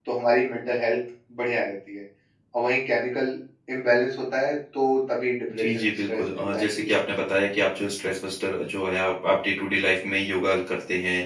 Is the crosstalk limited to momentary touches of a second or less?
No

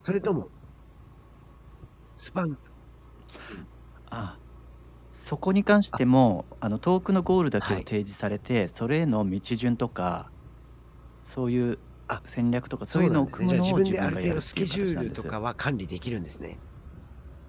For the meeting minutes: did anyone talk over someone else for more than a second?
Yes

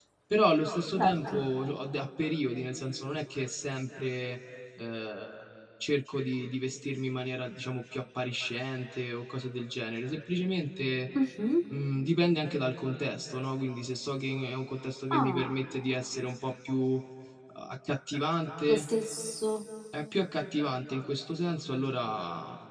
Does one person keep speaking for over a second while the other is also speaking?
No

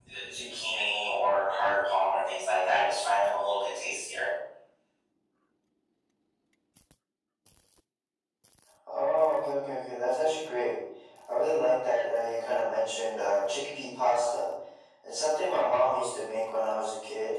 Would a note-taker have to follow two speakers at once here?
No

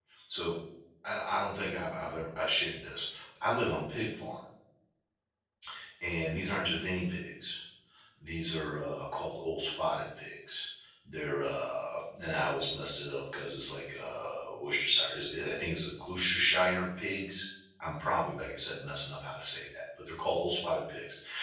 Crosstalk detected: No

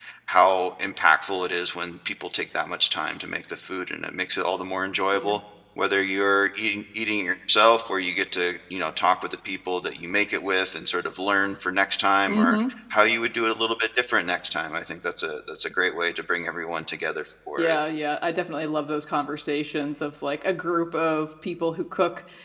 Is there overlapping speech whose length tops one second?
No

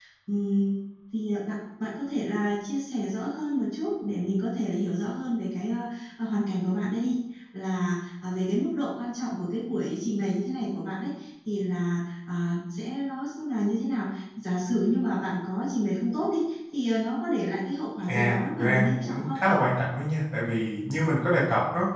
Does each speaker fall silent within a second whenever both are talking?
No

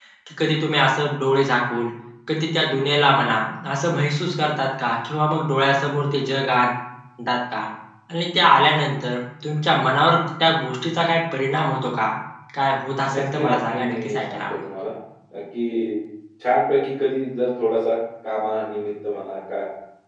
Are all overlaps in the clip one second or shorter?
No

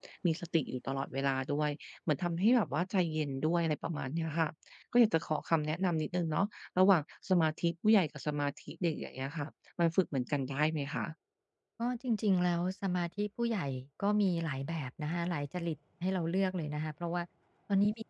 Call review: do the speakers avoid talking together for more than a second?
Yes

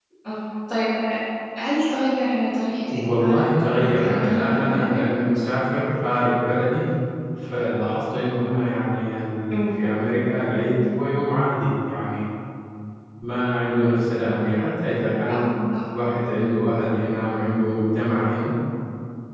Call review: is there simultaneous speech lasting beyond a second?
Yes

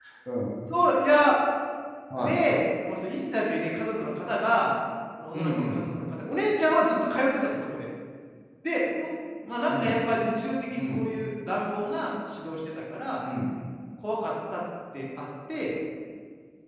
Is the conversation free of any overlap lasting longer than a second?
Yes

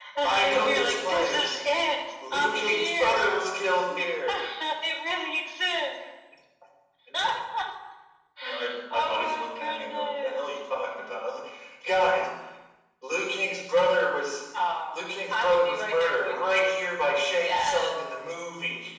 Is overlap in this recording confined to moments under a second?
No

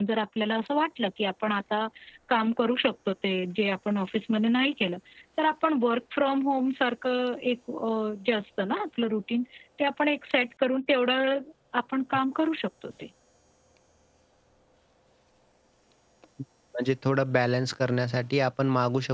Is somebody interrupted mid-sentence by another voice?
No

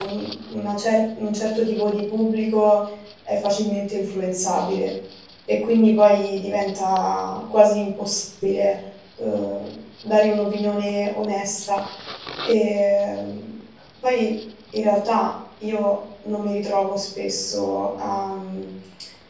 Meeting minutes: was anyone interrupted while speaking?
No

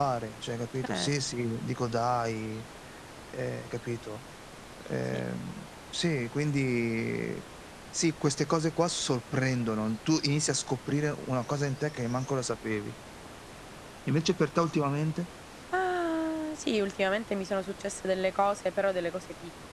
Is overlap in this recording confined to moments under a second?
Yes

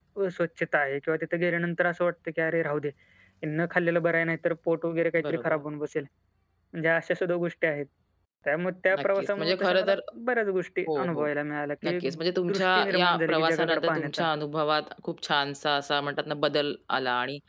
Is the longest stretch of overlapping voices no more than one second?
No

